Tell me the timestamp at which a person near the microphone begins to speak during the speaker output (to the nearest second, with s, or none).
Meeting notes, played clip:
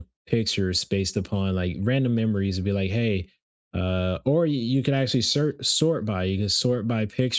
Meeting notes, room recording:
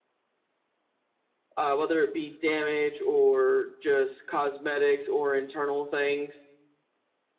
2 s